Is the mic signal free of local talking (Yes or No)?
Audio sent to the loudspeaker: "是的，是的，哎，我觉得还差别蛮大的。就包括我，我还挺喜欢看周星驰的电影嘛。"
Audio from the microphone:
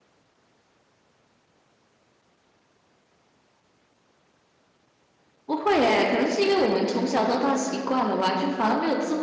No